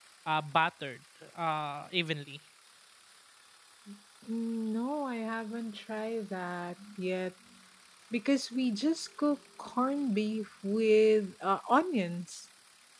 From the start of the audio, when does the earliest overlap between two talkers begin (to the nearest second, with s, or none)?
none